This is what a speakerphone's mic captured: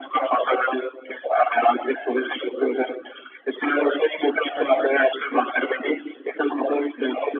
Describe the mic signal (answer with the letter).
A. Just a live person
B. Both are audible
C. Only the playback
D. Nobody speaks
B